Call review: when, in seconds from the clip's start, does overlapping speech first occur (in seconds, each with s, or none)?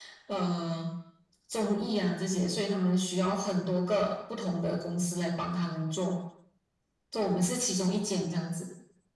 none